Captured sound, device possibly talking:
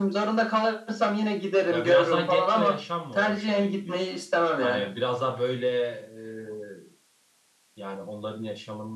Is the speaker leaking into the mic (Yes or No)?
Yes